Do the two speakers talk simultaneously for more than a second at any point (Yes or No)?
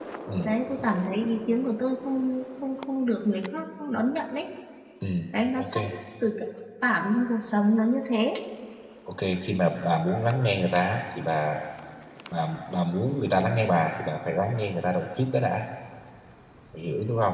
No